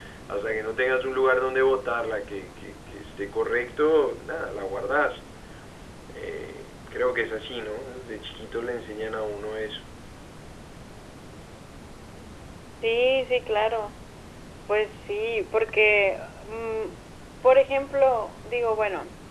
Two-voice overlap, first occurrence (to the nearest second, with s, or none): none